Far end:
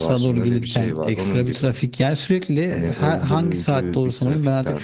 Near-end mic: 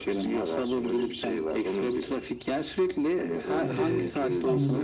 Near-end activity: present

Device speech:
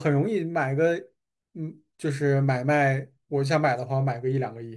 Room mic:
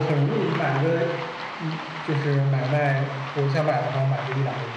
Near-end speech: none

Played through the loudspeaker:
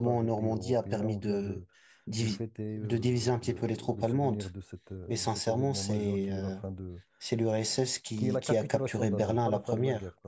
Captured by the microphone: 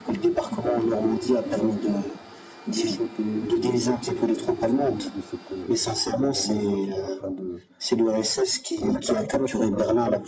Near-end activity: none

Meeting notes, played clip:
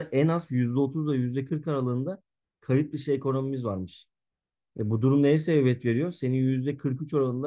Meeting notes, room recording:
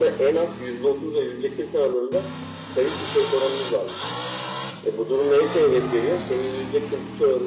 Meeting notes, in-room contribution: none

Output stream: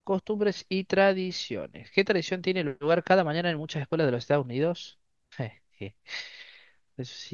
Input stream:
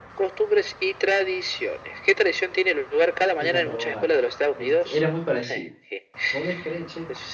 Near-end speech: present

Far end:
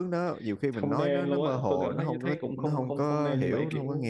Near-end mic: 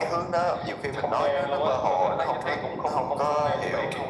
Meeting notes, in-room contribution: none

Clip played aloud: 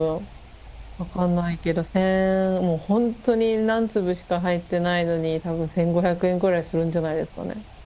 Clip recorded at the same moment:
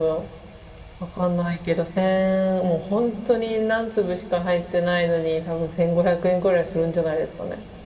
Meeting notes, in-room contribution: none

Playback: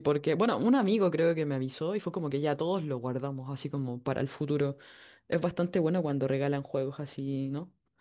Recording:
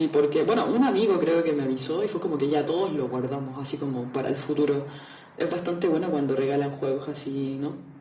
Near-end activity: none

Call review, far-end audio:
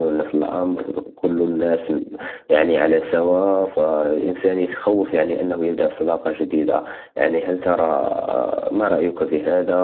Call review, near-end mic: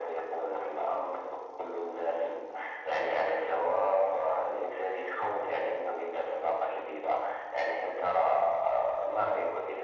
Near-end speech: none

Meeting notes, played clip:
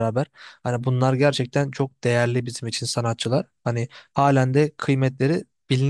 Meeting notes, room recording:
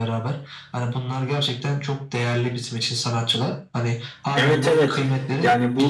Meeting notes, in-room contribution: present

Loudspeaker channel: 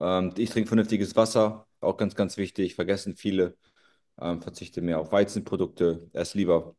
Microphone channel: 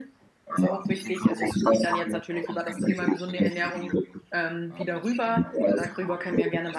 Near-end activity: present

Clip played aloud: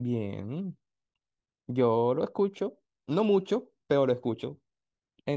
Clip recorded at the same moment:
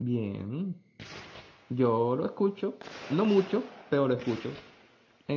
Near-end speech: none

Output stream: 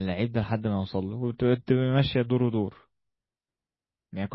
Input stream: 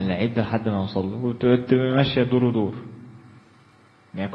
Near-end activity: none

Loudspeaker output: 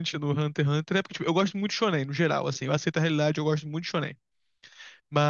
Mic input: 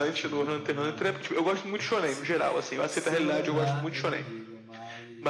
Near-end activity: present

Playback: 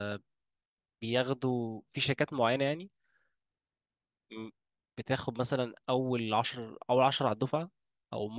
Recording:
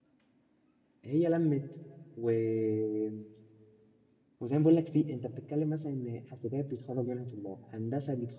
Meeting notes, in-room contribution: present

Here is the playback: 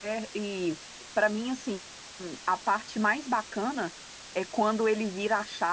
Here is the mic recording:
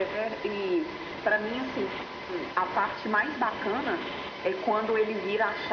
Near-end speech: none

